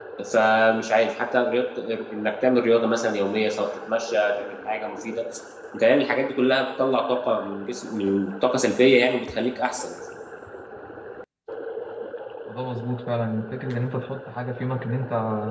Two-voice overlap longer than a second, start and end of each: none

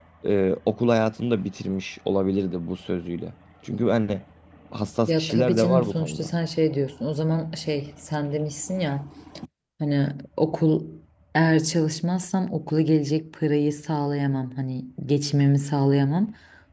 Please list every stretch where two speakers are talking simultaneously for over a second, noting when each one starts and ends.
5.1-6.3

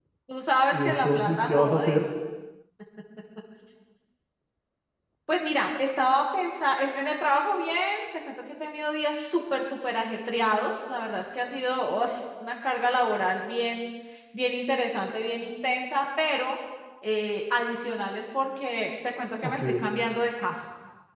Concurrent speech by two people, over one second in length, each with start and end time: 0.7-2.0

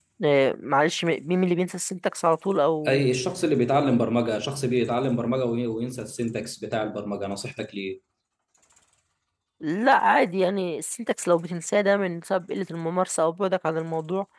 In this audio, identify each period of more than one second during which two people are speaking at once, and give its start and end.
none

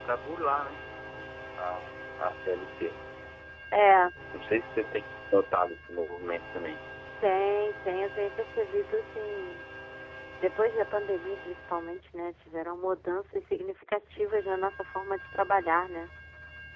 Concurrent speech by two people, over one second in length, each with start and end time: none

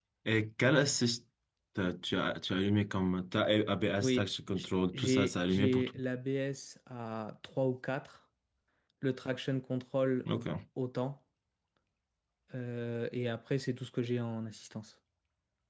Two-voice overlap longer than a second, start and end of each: 4.0-5.9

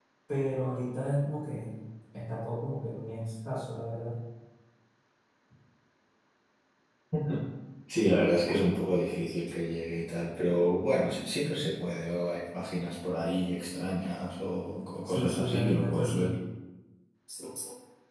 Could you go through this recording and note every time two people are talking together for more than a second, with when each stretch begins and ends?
15.1-16.3

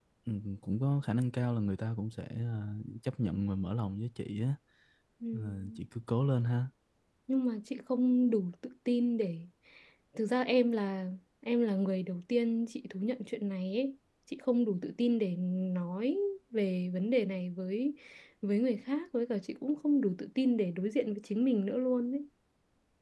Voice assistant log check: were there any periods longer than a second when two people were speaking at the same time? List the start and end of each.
none

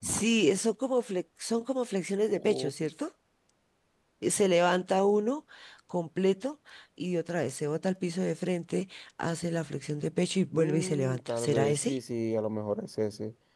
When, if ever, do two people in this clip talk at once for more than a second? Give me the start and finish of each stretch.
10.5-12.0

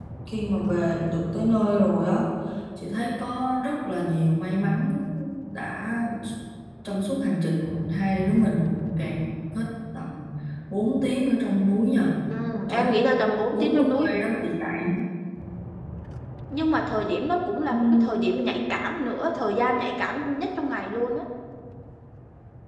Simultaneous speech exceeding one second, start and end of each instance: none

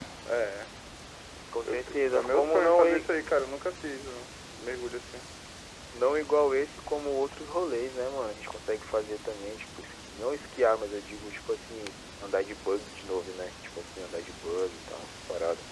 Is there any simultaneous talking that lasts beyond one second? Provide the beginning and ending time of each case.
1.6-2.8

